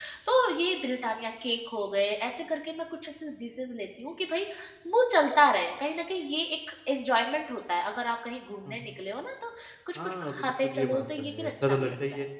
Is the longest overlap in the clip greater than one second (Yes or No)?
Yes